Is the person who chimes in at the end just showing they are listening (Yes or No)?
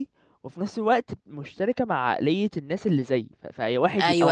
No